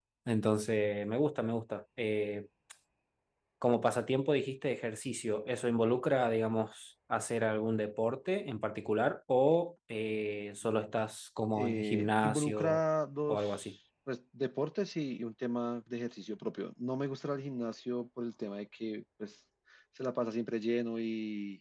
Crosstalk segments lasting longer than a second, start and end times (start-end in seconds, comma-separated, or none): 11.6-12.8